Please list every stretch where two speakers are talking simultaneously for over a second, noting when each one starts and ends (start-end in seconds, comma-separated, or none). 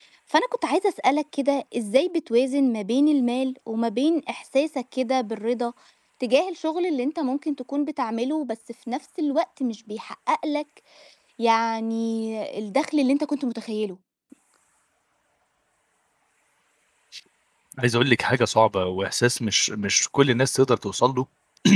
none